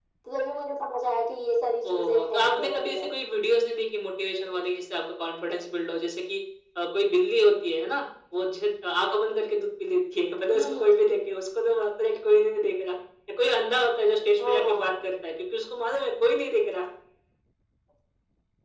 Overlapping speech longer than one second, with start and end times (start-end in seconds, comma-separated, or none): 1.9-3.1